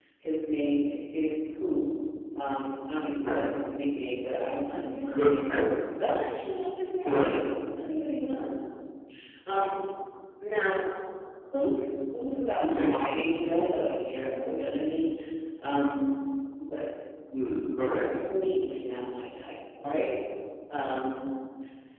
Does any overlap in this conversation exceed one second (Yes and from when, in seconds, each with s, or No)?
No